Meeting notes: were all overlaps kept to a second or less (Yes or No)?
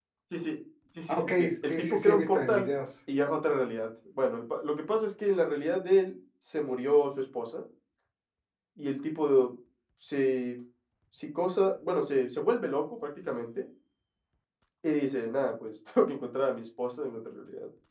No